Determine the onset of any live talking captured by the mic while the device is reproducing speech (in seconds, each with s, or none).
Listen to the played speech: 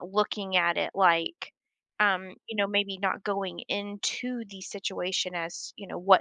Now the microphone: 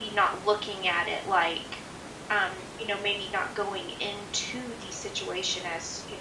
none